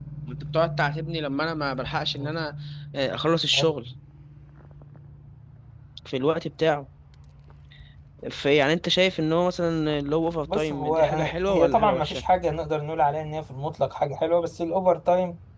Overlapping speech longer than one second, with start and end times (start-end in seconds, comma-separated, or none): 10.5-12.2